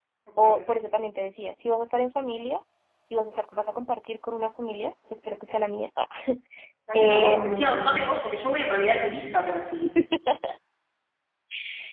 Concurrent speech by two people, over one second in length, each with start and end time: 6.9-8.2

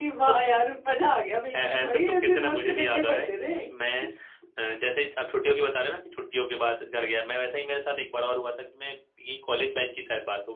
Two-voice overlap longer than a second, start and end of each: 1.5-3.5

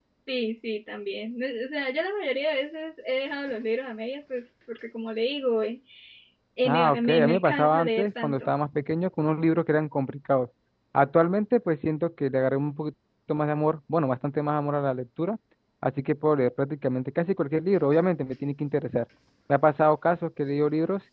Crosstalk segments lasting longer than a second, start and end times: 6.7-8.5

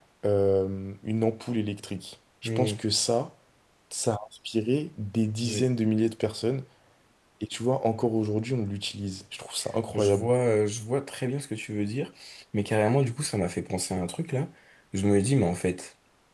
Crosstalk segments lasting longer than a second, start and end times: none

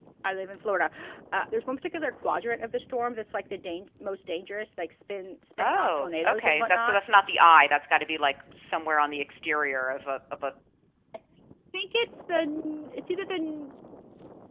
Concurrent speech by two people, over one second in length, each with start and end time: 5.6-7.0

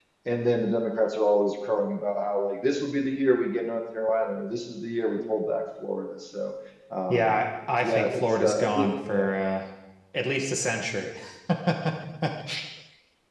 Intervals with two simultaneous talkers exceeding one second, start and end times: 7.8-9.3

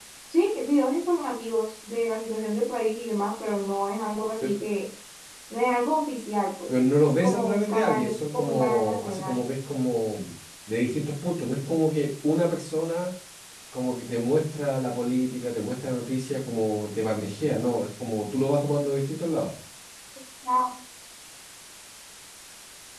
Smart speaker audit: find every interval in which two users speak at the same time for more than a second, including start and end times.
7.2-9.4

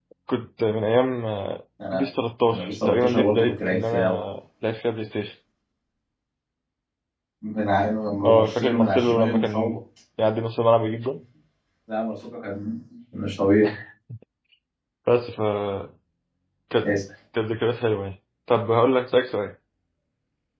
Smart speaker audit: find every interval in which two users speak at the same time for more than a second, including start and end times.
2.5-4.2, 8.2-9.8

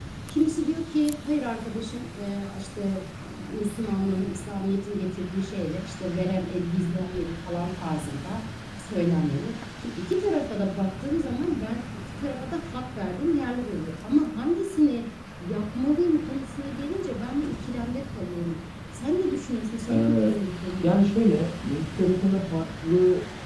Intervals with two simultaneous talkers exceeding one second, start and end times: none

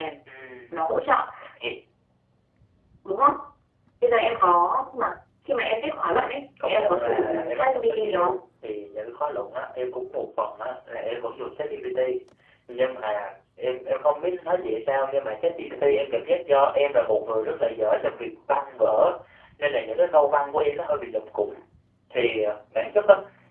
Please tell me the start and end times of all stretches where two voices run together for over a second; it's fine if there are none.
6.7-8.3

